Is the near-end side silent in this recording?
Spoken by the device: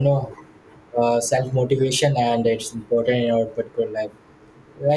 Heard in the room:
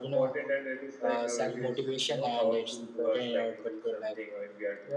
No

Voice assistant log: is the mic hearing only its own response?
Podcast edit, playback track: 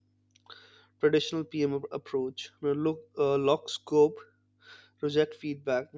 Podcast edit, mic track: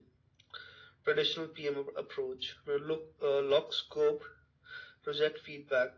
Yes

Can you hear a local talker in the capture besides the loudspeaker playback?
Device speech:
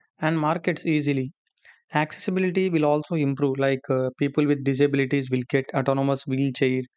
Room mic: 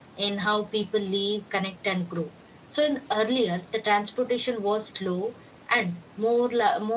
Yes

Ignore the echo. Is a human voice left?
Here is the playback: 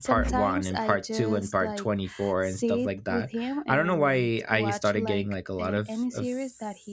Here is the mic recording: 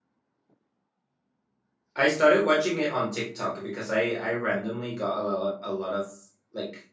Yes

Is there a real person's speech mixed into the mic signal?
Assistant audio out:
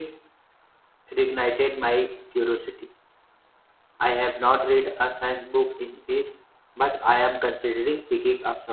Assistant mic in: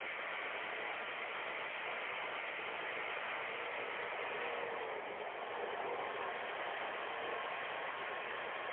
No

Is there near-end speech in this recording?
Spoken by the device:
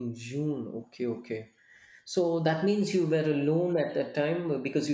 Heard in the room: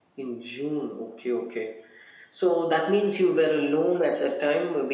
No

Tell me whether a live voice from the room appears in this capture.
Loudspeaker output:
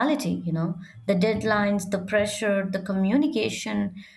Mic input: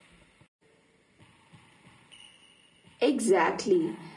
Yes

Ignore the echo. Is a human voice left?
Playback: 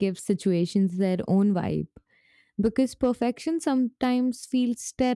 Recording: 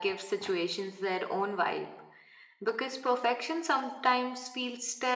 No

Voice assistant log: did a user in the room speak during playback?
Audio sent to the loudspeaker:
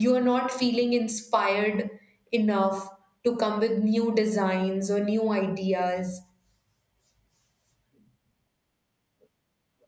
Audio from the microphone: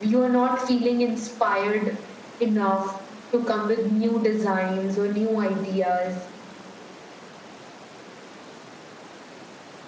No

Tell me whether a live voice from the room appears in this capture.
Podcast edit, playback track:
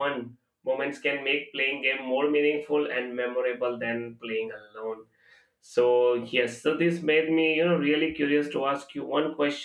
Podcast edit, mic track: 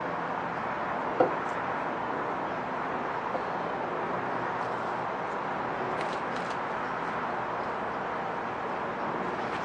No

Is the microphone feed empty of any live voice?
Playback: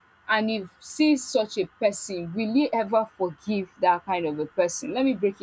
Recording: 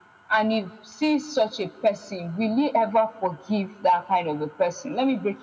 Yes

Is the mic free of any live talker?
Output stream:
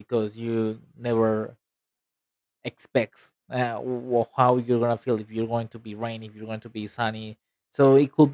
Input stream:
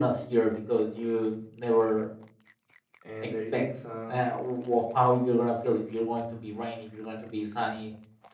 No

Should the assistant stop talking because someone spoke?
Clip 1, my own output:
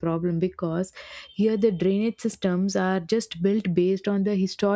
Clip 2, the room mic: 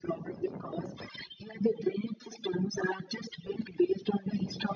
No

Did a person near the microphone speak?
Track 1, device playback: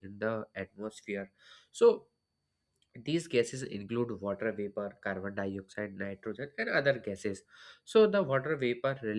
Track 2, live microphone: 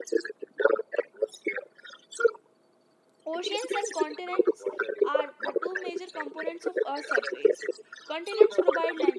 Yes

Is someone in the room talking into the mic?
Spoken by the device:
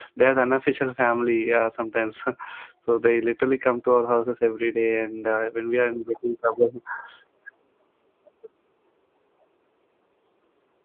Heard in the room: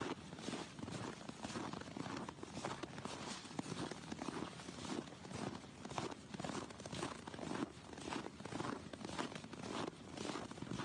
No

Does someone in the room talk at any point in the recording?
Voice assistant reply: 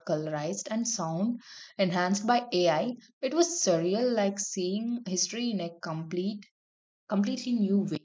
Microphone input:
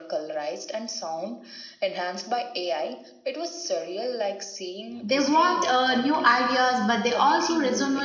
Yes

